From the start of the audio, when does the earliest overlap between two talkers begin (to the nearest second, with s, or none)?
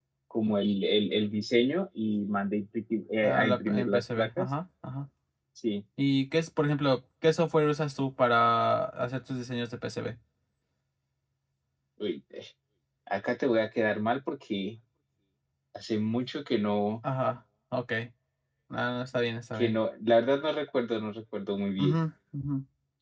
3 s